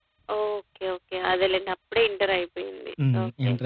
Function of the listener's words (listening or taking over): taking over